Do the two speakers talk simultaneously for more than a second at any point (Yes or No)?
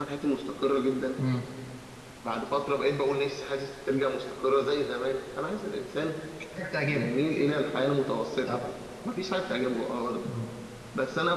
No